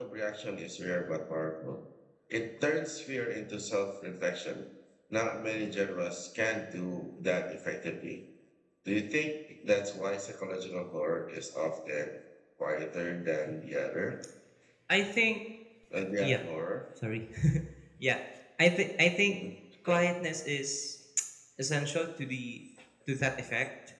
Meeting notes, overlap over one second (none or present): none